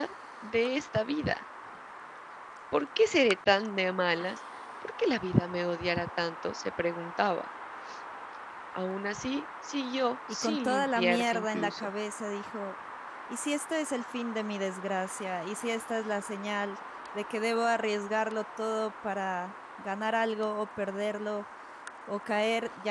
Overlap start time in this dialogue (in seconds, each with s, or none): 10.3 s